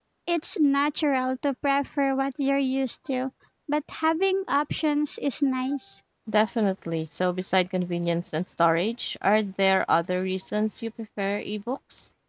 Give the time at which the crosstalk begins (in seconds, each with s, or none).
none